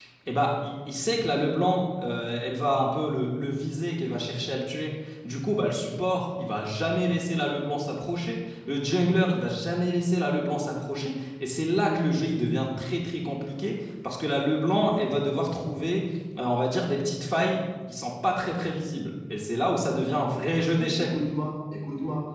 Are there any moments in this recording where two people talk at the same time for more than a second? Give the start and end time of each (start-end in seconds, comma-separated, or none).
none